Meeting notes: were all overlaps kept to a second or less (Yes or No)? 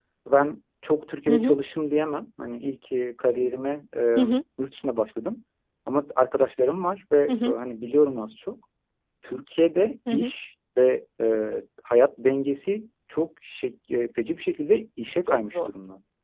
Yes